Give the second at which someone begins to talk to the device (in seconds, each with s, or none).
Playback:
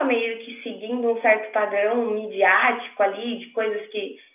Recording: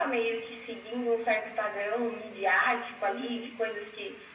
3.1 s